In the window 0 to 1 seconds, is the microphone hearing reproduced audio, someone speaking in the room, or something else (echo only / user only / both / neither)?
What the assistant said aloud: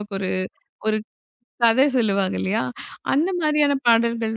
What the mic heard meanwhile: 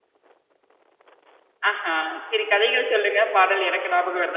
neither